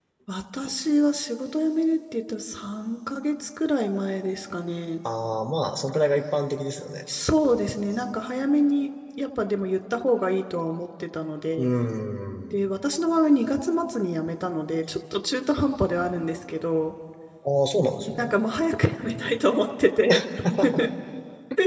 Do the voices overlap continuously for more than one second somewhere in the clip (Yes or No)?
No